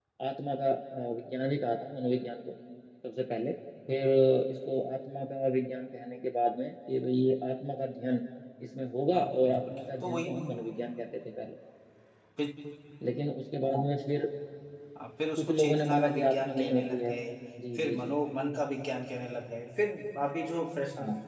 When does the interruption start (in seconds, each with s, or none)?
9.1 s